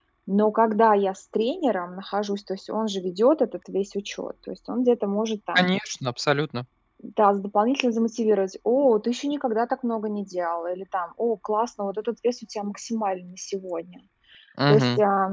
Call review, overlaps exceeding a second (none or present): none